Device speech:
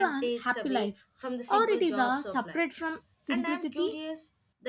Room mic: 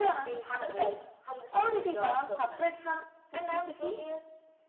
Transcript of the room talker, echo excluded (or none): none